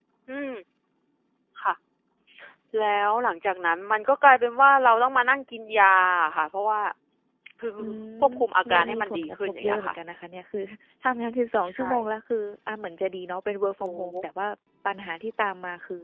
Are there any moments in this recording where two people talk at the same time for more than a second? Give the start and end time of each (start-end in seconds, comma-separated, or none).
8.7-9.9